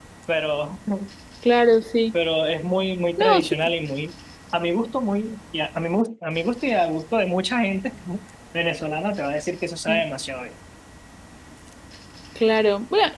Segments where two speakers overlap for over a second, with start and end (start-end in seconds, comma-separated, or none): none